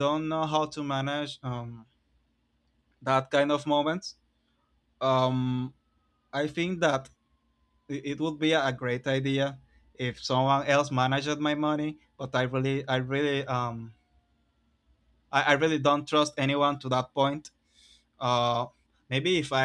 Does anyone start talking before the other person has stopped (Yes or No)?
No